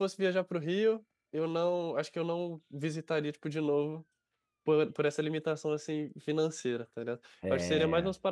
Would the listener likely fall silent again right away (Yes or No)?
Yes